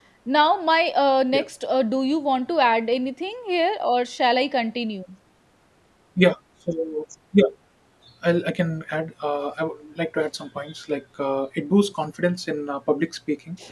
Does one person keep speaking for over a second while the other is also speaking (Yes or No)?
No